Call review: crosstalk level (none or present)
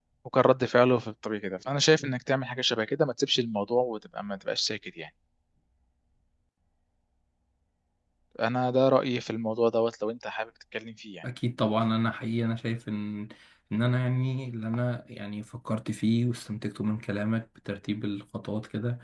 none